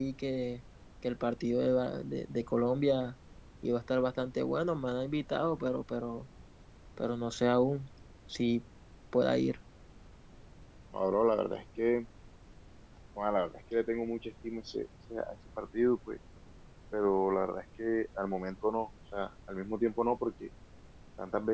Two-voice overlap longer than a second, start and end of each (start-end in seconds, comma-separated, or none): none